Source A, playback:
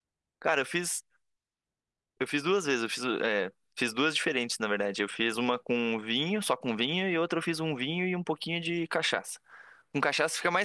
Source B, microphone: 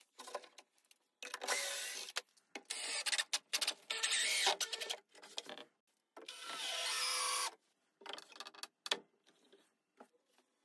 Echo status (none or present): none